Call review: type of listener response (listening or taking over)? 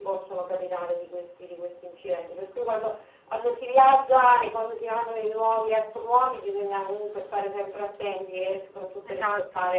listening